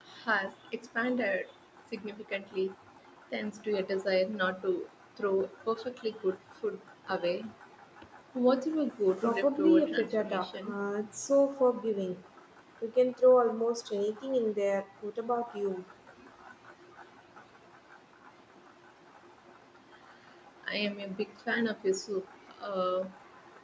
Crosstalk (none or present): present